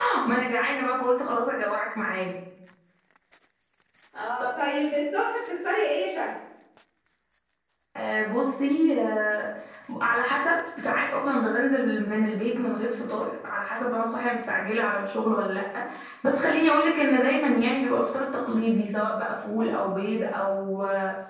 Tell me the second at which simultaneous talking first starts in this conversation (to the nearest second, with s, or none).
none